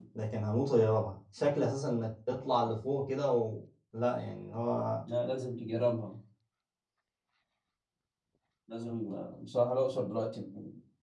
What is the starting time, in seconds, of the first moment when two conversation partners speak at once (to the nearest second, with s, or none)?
none